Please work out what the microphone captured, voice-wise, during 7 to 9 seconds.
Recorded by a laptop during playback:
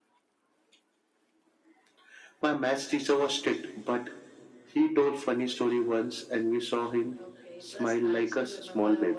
both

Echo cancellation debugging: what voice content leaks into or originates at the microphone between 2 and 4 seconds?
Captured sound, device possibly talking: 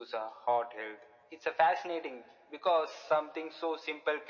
echo only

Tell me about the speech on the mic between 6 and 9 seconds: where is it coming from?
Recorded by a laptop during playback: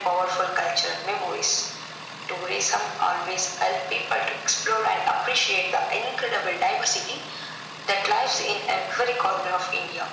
echo only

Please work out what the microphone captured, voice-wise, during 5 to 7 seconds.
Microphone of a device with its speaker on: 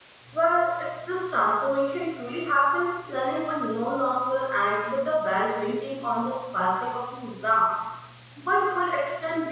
user only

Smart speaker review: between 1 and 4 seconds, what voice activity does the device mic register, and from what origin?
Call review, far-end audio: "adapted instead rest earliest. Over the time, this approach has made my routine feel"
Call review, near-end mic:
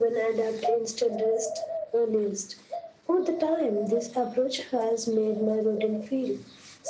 echo only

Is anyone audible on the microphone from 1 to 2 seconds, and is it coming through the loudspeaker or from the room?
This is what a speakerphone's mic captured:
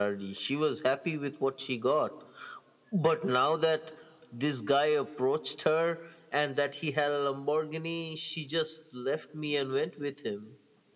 echo only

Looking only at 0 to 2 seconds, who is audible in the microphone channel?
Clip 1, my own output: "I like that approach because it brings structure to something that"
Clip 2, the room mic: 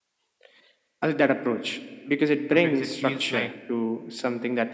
echo only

